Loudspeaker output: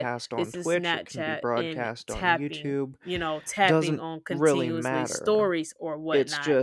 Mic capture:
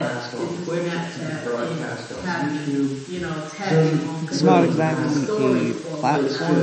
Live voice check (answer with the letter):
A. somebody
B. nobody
A